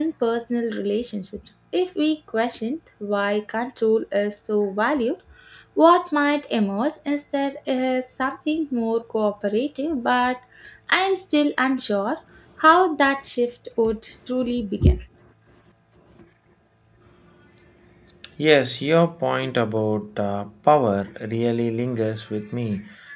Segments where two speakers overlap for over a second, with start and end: none

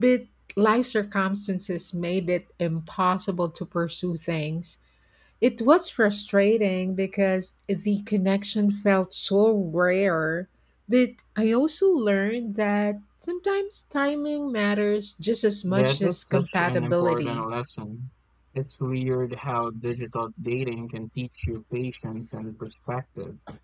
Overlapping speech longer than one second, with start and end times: 15.7-17.4

